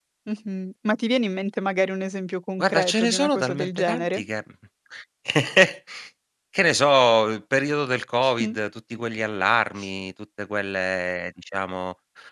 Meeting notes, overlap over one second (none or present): present